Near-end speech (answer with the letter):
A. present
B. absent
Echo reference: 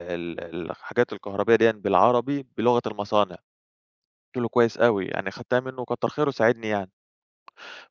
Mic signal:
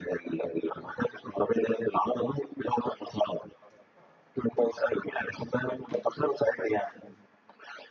B